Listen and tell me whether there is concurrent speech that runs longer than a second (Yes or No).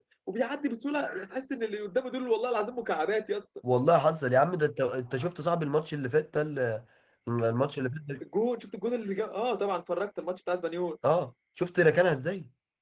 No